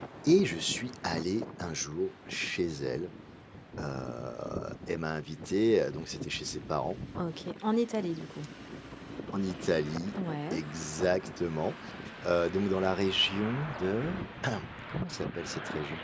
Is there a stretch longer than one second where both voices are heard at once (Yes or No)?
No